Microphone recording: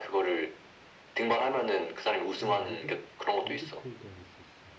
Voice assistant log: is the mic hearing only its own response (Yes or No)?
No